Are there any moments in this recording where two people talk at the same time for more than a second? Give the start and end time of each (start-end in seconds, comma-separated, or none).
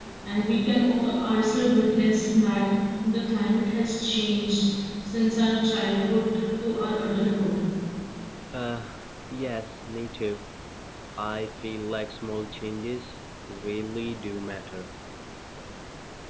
none